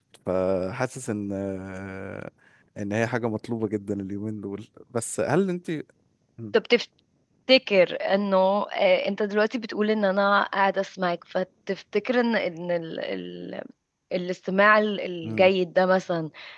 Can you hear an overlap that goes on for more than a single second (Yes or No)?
No